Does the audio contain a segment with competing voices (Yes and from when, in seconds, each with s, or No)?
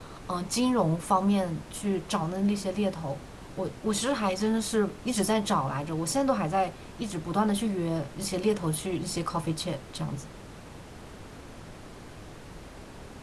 No